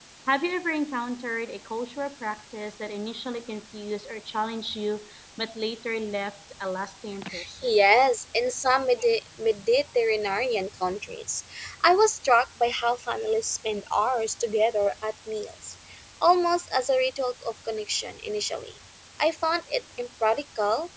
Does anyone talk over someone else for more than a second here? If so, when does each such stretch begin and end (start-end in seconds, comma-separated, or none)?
none